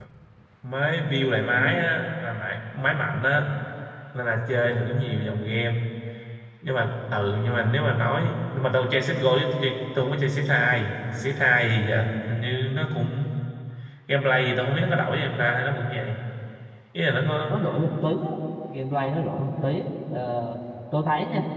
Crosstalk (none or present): none